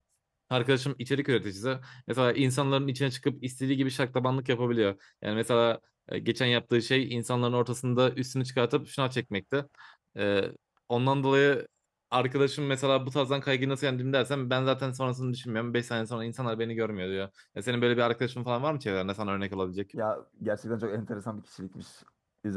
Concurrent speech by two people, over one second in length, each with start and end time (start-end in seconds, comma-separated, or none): none